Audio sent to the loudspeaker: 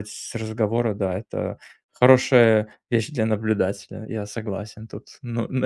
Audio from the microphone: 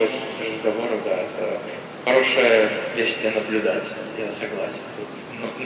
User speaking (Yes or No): No